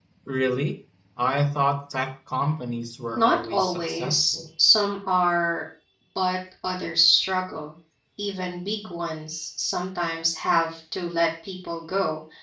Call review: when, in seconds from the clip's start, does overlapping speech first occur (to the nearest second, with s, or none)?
3 s